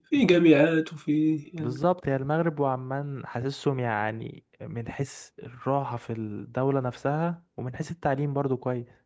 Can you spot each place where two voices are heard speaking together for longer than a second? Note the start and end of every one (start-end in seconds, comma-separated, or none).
none